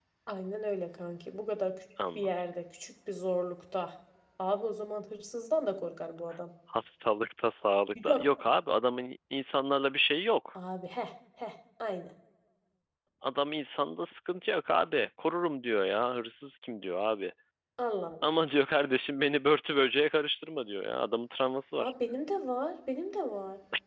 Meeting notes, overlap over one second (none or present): none